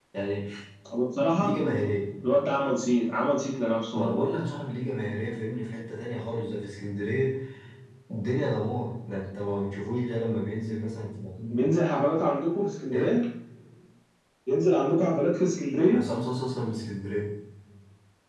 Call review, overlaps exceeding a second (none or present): none